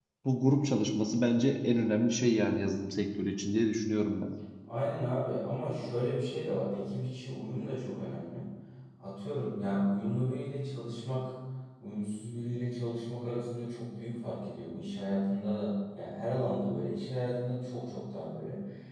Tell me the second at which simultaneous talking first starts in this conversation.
none

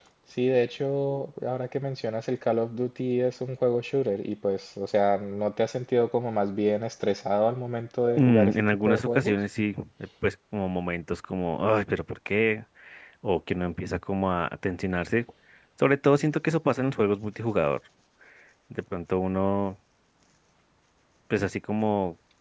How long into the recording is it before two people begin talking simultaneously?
8.2 s

